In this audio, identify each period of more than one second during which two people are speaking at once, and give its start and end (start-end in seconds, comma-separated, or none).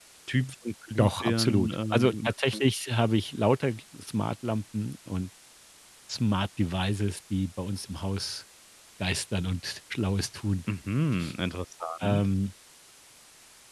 1.0-2.3